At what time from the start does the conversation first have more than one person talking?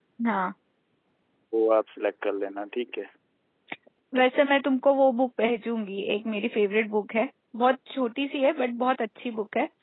none

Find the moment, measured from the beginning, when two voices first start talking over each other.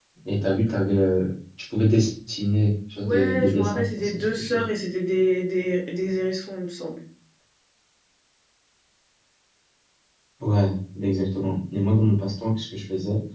3.0 s

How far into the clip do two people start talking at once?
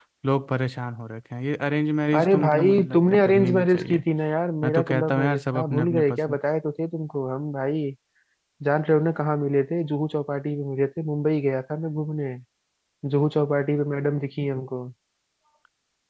2.2 s

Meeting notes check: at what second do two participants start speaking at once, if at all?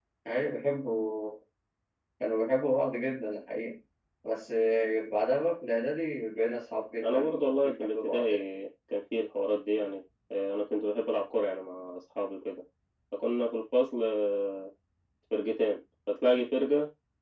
7.0 s

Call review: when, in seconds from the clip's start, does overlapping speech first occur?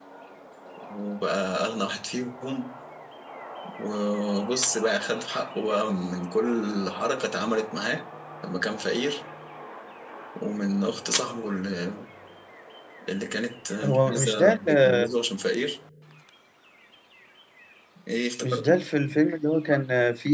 13.8 s

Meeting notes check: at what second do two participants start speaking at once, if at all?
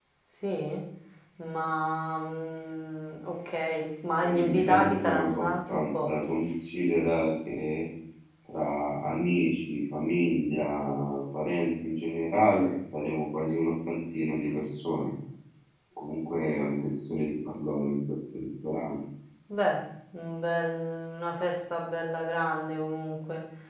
4.2 s

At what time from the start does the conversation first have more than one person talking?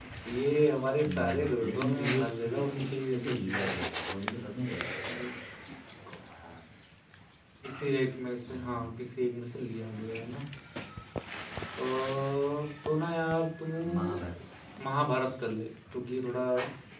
1.0 s

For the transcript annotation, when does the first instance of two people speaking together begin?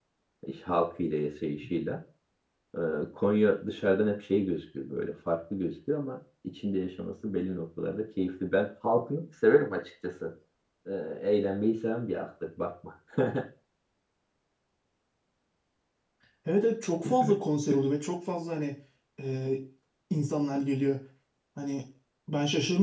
none

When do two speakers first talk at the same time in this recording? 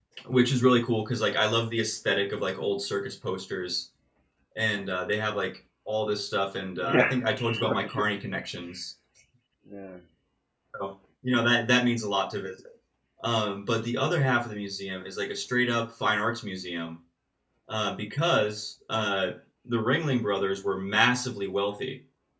6.8 s

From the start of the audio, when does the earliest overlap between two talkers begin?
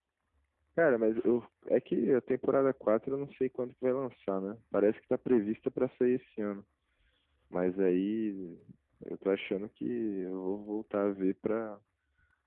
none

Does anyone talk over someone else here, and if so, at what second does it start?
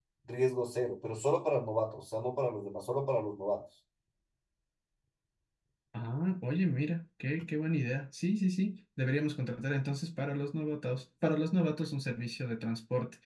none

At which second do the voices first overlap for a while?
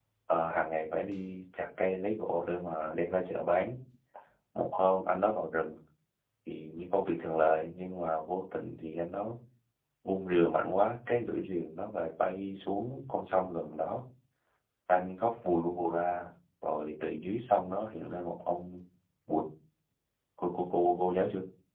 none

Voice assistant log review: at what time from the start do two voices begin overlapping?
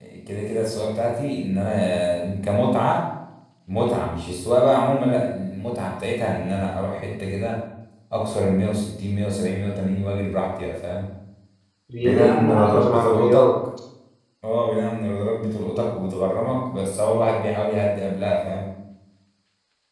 12.0 s

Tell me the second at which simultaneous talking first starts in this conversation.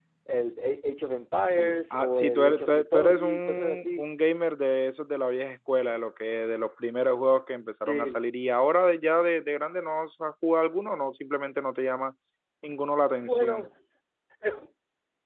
1.6 s

